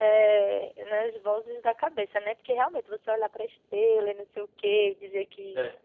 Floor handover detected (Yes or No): No